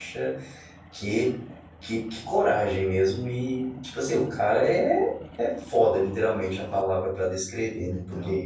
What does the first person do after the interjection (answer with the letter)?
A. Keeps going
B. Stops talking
A